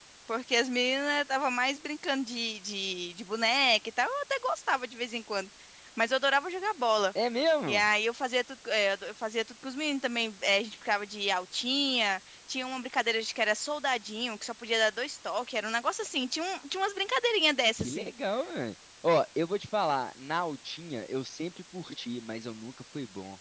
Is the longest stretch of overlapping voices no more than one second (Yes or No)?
Yes